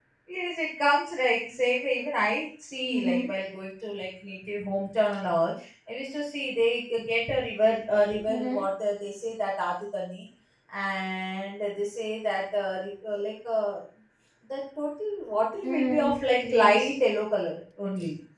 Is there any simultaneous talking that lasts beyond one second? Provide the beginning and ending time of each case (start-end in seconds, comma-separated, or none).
15.6-16.9